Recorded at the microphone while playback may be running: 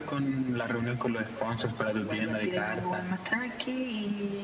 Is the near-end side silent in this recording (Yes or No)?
Yes